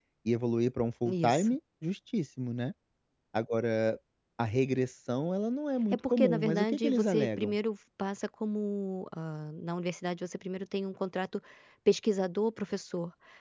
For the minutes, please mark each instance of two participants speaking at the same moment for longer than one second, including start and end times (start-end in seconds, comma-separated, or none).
5.9-7.5